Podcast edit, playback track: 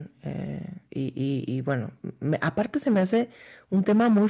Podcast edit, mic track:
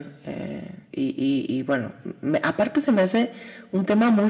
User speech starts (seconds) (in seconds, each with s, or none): none